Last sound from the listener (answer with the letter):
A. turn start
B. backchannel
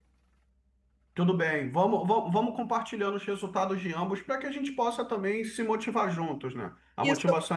A